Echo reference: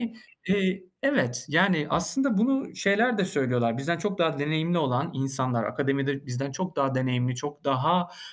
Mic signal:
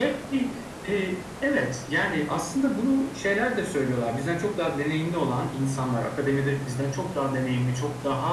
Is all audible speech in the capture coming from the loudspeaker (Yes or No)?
Yes